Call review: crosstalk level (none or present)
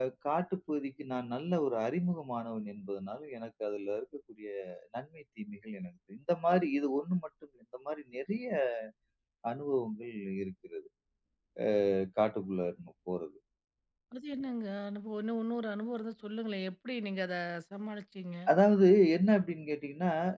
none